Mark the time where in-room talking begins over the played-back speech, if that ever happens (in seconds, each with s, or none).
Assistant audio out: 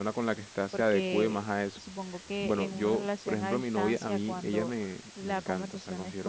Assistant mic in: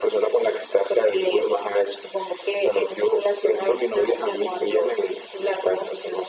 none